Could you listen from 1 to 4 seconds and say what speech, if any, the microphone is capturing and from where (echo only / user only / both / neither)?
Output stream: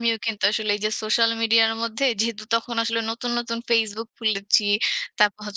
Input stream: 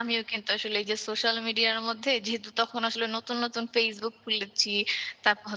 echo only